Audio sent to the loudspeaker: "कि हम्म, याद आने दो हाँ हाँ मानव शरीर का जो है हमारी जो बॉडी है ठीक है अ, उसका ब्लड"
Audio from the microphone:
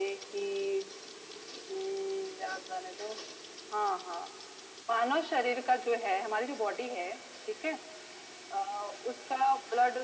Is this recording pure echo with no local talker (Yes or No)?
Yes